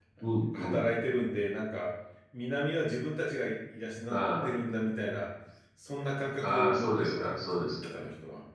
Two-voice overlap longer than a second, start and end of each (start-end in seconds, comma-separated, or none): 6.4-8.0